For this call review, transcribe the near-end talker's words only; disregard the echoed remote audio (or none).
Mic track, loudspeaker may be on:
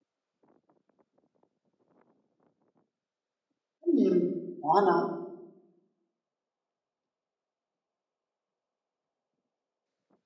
Mhmm, buono.